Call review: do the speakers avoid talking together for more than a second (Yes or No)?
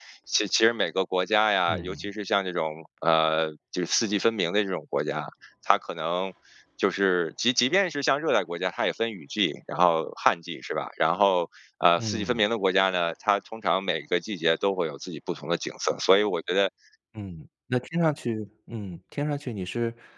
Yes